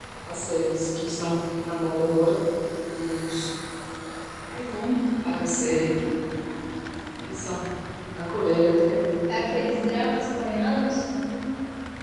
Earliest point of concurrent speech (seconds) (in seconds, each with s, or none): none